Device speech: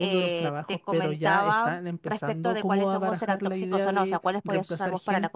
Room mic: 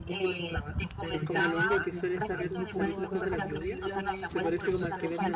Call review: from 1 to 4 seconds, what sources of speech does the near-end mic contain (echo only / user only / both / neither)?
both